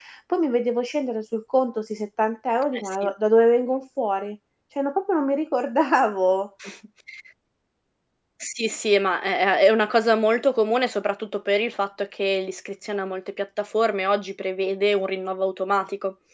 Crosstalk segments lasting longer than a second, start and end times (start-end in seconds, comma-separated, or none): none